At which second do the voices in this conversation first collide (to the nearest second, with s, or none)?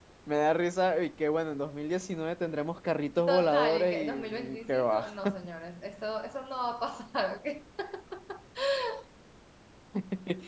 3 s